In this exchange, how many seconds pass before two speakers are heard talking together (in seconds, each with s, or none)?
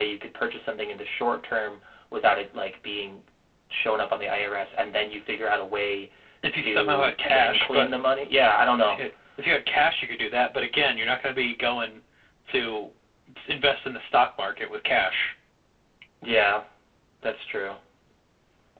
6.5 s